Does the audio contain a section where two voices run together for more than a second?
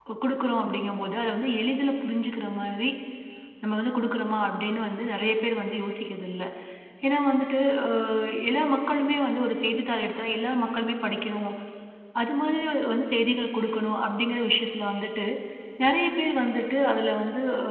No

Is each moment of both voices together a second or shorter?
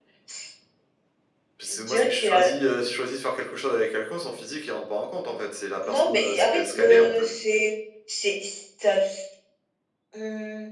No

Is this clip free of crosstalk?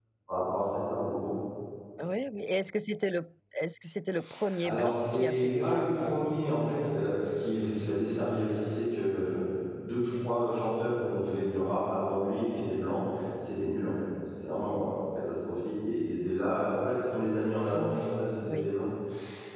No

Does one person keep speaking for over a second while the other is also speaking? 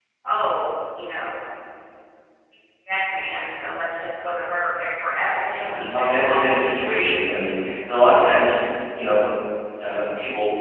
Yes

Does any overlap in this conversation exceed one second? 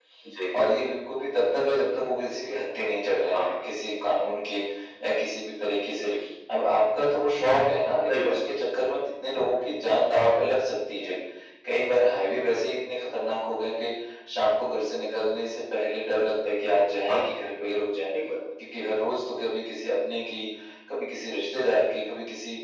No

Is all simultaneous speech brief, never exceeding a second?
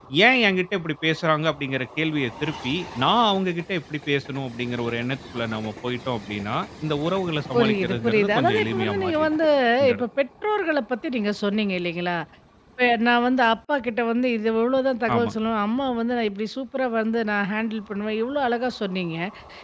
No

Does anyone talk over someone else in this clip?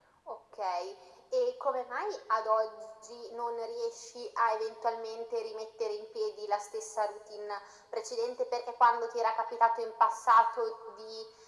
No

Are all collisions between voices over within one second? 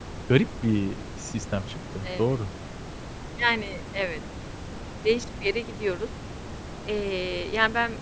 Yes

